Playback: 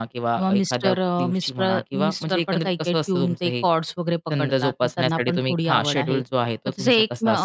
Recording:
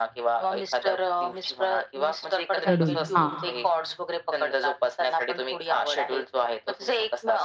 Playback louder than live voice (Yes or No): No